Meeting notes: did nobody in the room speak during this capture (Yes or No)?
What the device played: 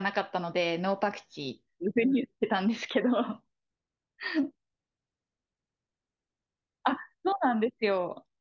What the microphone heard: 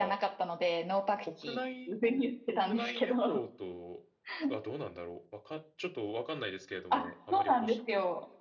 No